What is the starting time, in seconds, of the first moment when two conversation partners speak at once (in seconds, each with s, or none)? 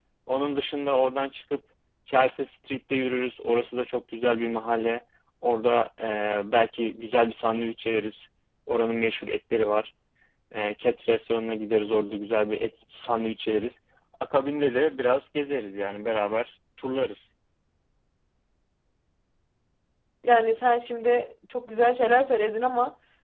none